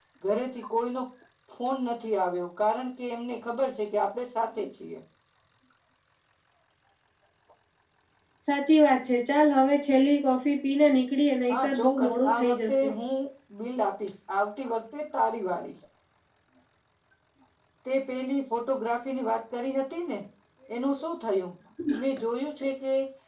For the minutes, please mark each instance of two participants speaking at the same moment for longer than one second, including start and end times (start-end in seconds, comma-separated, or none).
11.5-12.9